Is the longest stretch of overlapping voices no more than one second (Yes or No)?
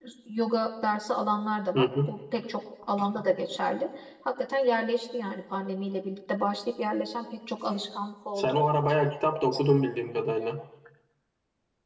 Yes